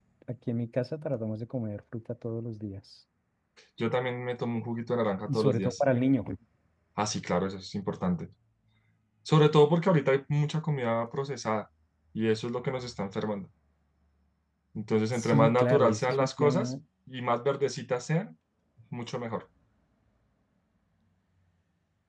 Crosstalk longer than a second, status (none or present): present